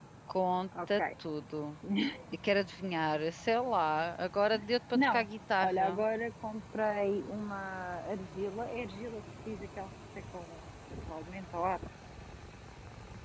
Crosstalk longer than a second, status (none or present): none